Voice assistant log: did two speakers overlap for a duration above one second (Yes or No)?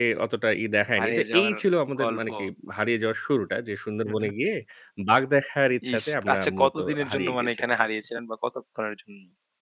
Yes